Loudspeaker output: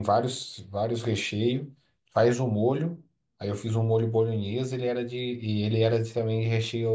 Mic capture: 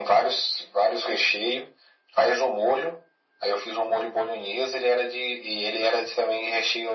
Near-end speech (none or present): none